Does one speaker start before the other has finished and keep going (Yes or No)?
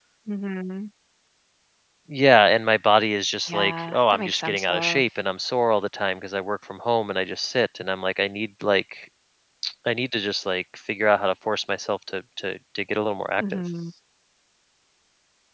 Yes